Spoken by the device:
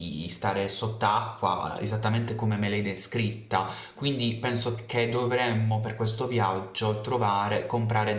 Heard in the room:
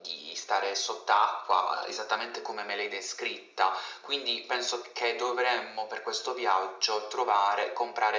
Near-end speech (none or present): none